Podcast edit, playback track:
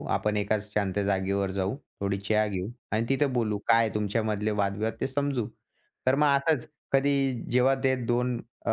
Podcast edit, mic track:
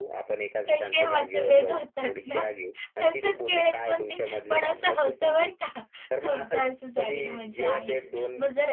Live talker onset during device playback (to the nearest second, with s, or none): 1 s